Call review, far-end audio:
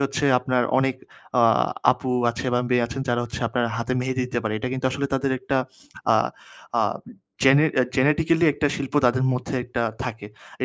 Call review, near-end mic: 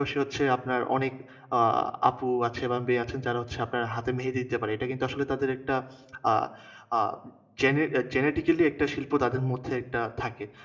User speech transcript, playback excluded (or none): none